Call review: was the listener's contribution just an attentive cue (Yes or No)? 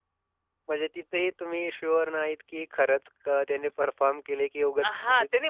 No